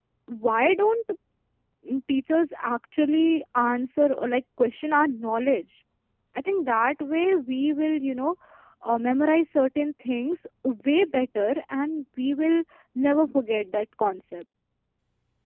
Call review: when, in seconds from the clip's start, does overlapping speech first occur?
none

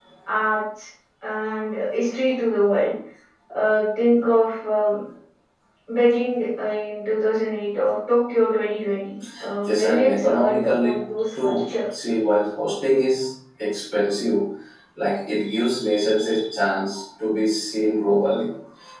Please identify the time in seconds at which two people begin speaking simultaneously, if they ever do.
9.7 s

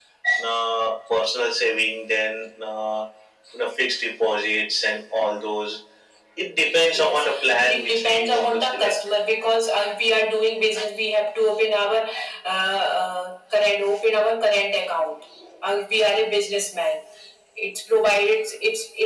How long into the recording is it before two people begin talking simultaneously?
7.0 s

